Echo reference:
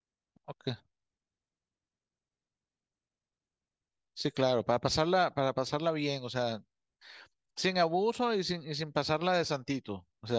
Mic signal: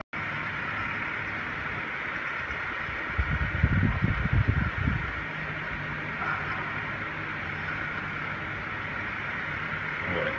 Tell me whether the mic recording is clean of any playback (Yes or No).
Yes